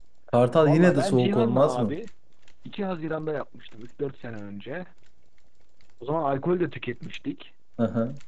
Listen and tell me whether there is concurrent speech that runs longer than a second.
Yes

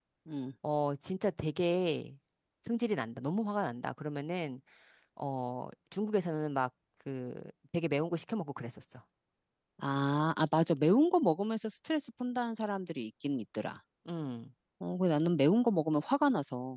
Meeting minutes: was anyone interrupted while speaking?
No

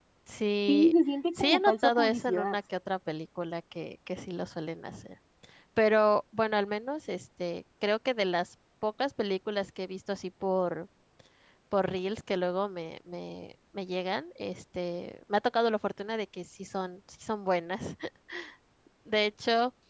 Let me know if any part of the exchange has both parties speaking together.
Yes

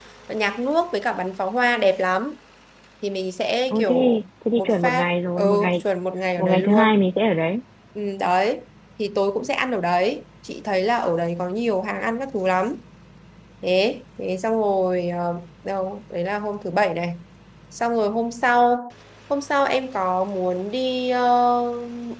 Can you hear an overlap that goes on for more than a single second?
Yes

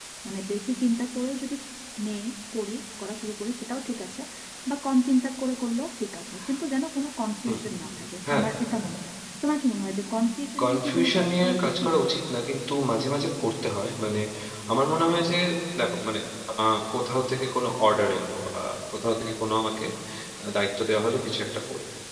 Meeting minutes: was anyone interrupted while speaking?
Yes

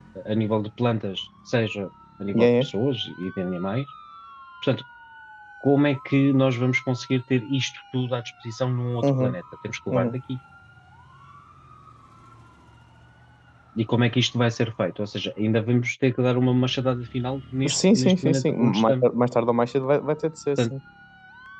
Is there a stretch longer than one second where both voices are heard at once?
Yes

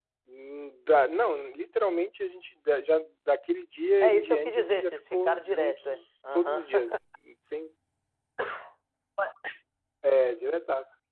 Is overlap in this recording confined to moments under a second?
No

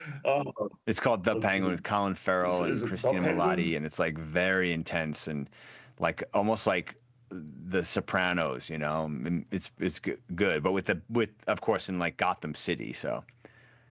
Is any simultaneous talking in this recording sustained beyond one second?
Yes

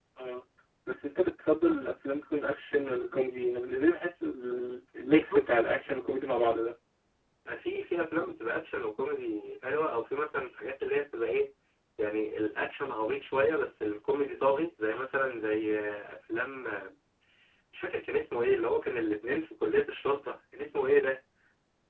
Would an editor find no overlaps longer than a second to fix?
Yes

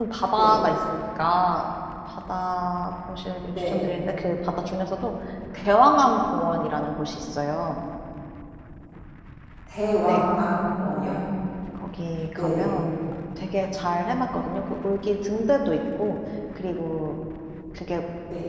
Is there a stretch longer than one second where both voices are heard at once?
No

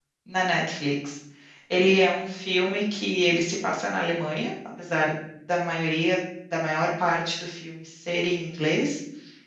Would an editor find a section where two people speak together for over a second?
No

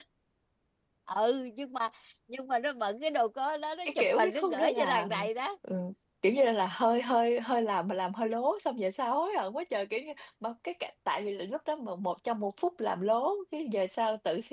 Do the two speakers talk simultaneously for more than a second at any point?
Yes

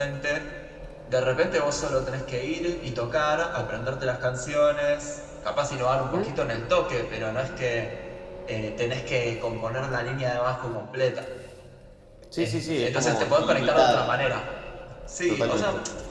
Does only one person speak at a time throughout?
No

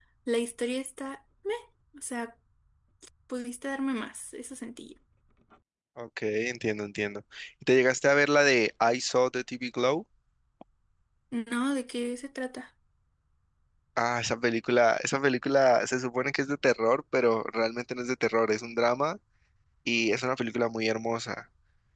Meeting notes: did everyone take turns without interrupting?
Yes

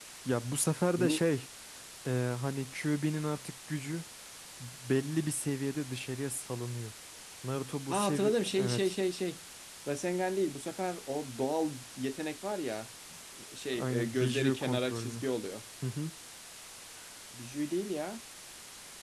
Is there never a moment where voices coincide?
No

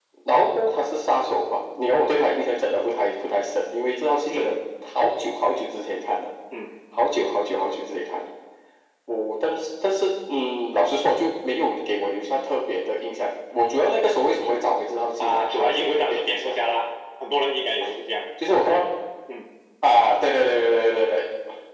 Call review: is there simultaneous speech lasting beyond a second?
Yes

